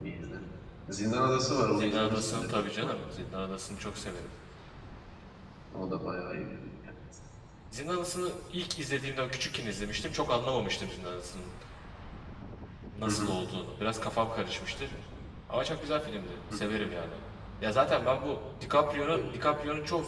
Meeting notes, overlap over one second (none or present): present